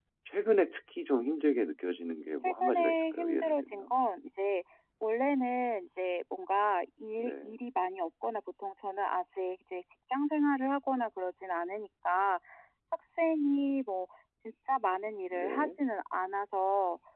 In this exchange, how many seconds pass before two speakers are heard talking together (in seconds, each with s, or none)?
2.4 s